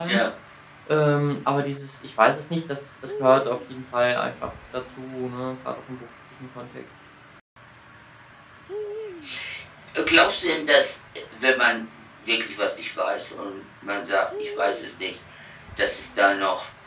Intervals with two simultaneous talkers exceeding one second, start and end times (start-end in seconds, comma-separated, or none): none